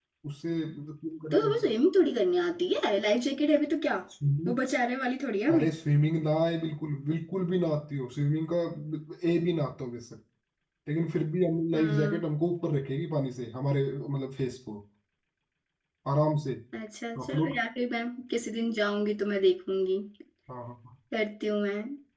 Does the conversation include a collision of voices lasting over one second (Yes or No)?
No